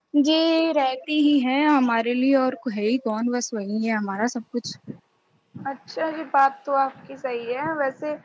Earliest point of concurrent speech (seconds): none

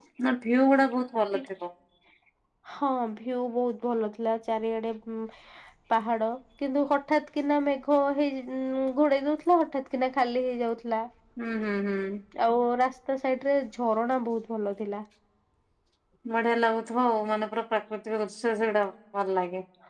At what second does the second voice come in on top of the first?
none

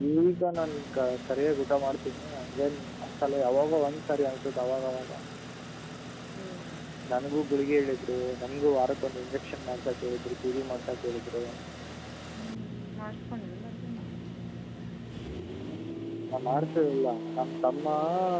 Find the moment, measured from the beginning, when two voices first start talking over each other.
none

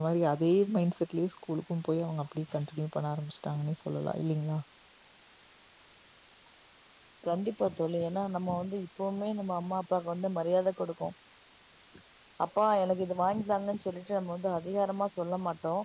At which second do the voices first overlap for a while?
none

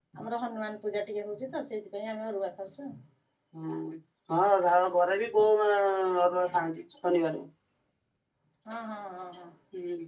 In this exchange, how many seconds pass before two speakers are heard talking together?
none

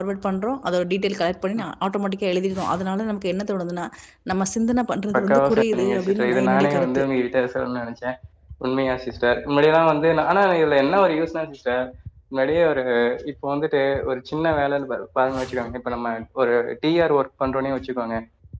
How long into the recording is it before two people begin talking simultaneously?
5.1 s

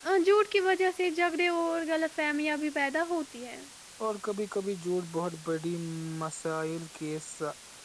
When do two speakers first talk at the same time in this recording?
none

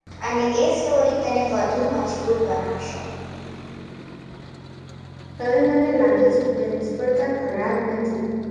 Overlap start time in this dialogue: none

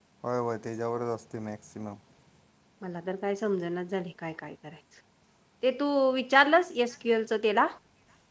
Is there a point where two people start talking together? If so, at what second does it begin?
none

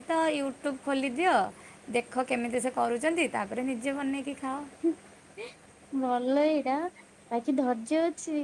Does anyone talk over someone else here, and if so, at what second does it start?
none

